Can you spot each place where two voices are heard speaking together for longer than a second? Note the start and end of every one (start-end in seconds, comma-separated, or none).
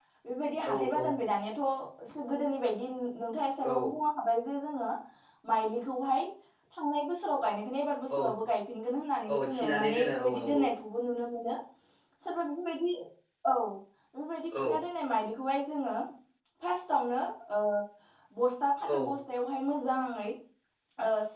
9.3-10.6